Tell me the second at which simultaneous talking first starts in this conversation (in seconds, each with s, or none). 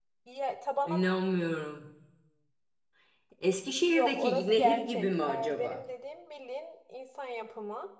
3.9 s